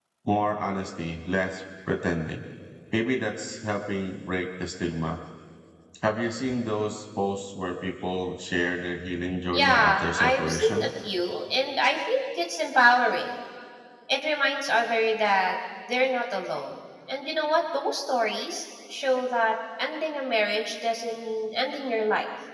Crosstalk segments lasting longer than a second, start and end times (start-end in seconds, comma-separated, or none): 9.5-10.9